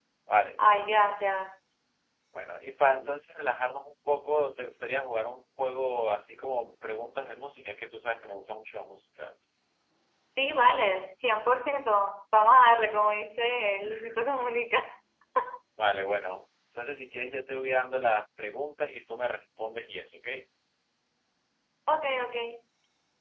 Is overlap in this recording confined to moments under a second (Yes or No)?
Yes